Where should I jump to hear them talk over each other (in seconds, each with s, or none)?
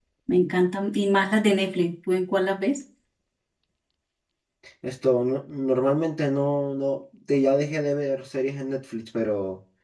none